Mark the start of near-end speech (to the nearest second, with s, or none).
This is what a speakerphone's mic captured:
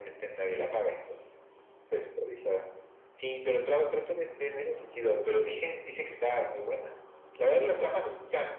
none